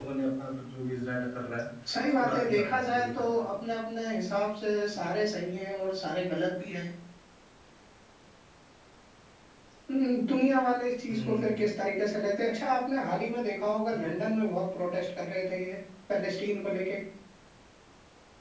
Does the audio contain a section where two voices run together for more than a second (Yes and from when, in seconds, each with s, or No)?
Yes, from 2.2 s